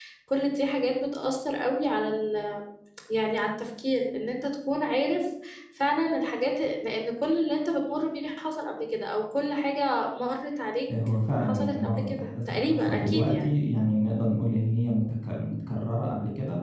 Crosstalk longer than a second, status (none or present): present